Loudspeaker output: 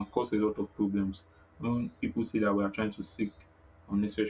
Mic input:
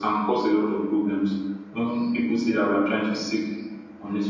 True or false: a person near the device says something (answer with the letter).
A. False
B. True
A